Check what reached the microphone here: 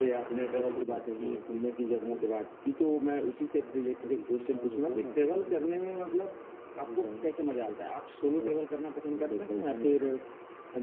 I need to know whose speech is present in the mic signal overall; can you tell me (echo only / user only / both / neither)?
echo only